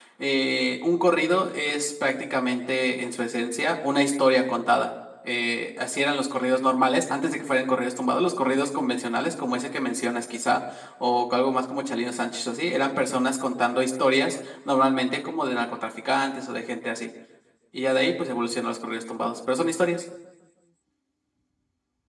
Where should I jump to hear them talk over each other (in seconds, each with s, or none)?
none